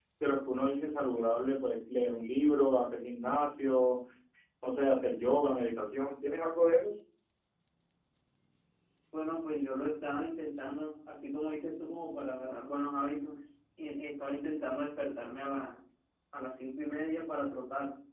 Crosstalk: none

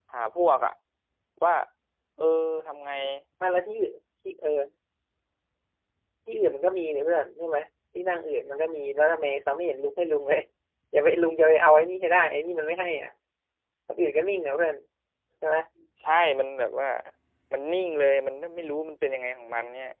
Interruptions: none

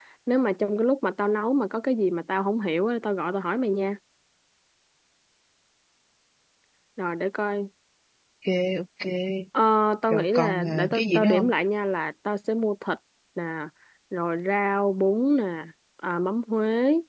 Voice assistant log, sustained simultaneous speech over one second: present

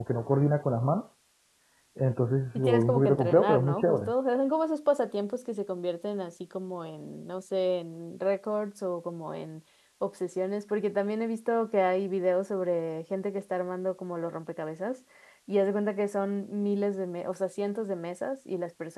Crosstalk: present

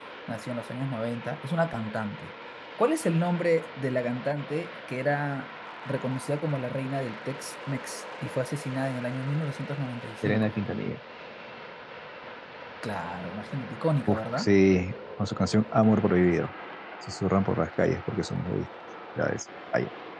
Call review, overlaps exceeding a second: none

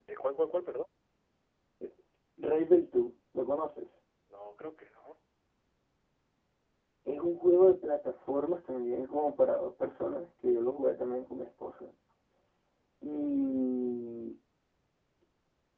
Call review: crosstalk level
none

